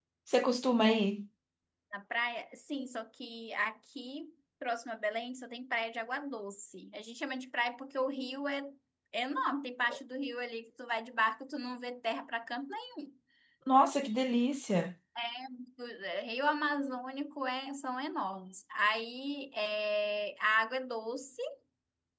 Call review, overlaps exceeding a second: none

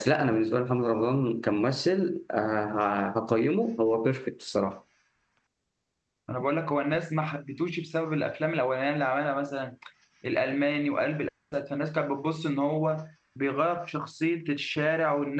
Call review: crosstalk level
none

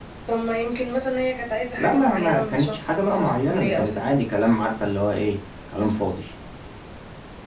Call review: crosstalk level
present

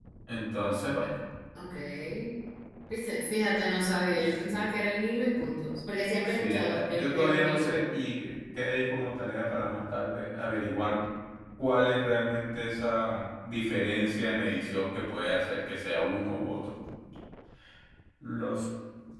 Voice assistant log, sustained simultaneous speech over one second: present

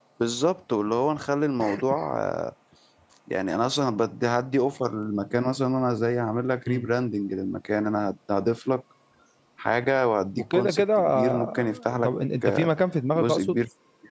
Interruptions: present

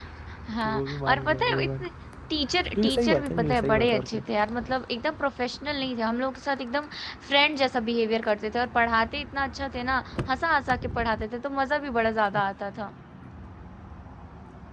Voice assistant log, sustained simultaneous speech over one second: present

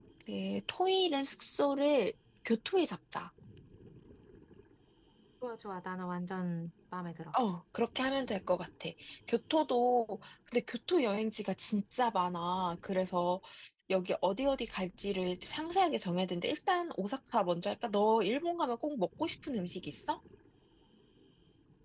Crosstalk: none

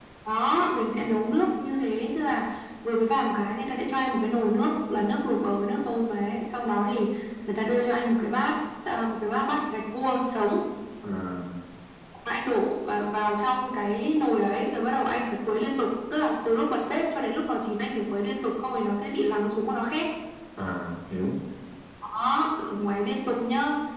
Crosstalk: none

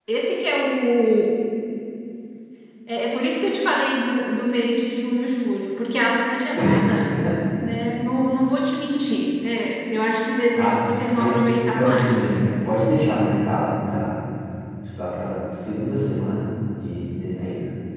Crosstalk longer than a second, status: present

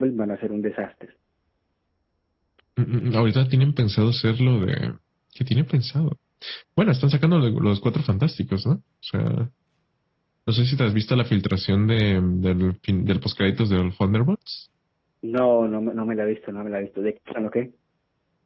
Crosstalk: none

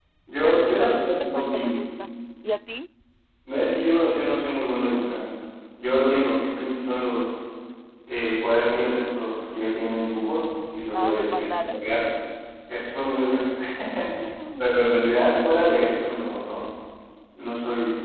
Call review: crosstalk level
present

